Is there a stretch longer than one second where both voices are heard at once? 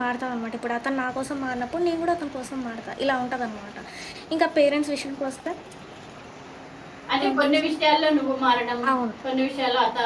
No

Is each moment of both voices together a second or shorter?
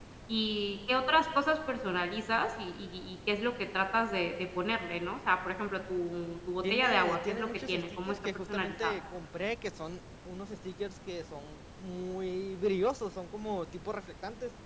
No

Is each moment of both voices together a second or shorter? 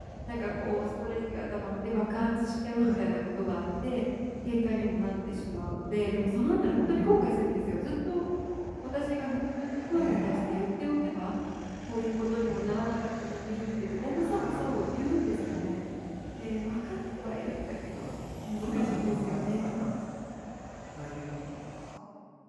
No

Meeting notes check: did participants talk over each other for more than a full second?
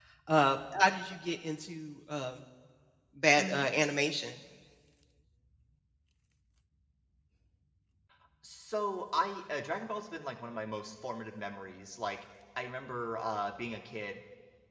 No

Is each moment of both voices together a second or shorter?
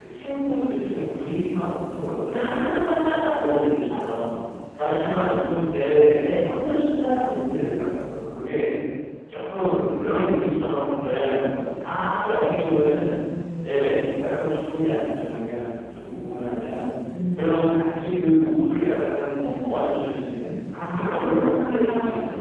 No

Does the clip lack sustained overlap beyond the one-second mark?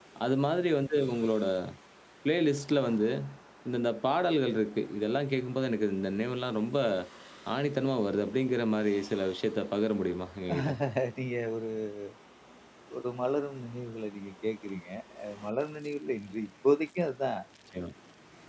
Yes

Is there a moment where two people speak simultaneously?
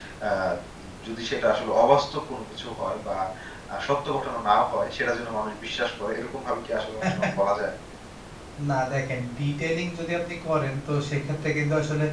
No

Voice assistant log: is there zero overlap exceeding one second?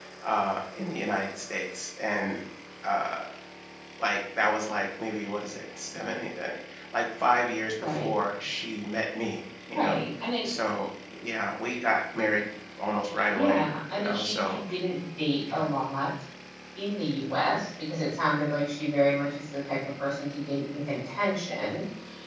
No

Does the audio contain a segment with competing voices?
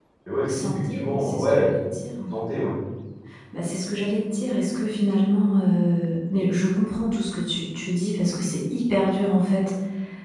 Yes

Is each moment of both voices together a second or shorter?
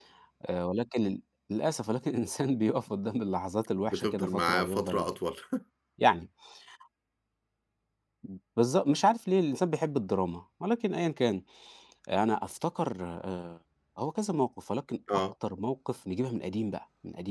No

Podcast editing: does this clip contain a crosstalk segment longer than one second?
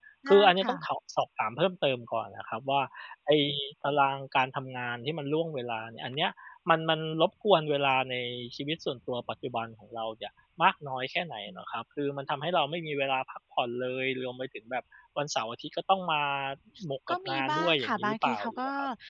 Yes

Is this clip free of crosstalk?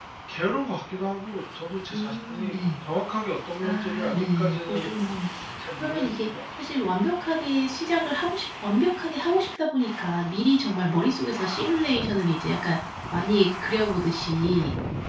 No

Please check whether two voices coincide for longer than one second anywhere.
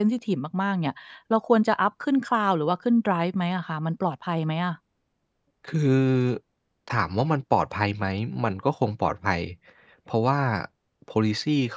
No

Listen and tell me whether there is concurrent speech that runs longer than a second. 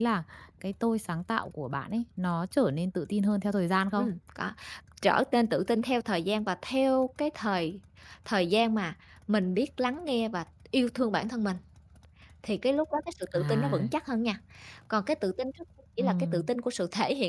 No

